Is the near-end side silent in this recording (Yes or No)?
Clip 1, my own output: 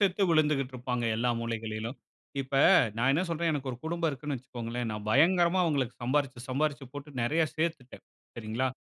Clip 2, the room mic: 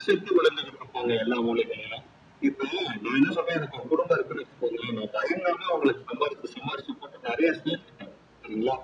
Yes